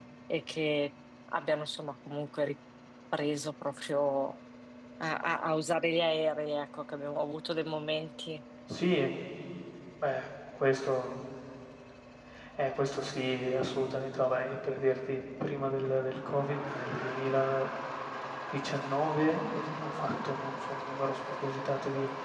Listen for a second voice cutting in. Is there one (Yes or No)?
No